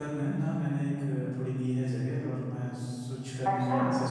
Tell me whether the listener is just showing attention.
Yes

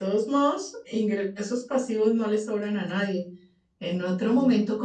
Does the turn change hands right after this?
No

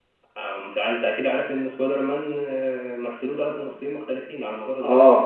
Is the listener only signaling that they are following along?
No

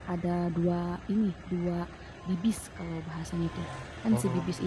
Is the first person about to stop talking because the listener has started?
No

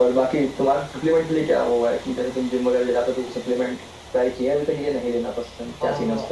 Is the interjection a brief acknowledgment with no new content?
No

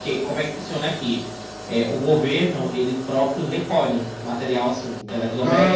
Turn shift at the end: No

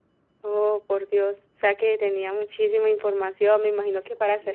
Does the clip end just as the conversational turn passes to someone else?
Yes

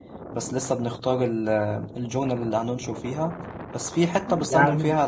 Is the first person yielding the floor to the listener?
No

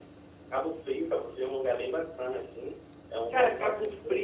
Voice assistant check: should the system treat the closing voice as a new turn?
Yes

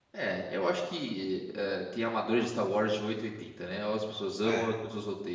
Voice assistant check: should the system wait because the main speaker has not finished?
Yes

